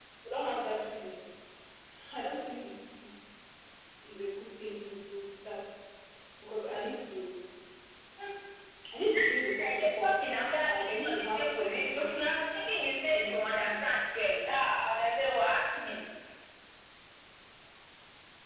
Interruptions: present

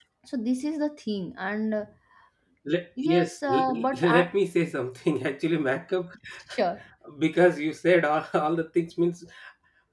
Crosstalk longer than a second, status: present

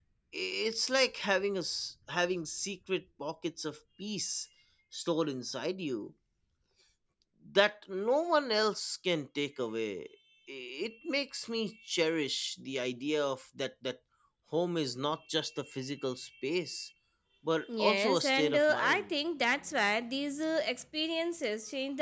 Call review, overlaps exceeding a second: present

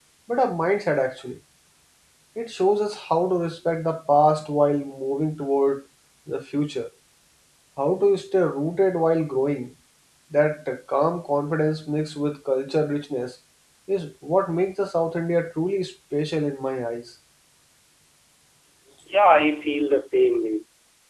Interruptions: none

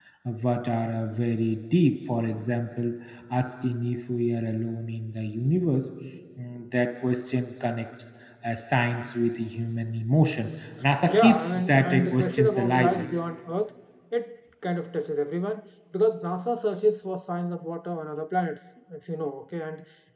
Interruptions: present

